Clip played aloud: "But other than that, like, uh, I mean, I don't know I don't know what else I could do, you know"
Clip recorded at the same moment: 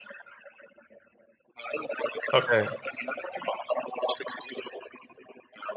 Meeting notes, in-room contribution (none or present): present